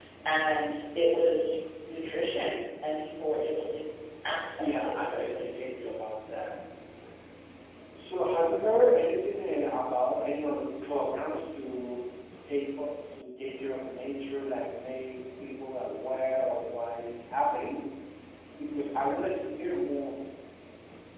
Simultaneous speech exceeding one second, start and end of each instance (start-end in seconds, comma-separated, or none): 4.6-5.9